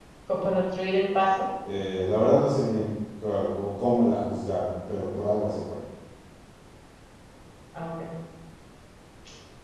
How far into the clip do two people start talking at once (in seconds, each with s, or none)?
none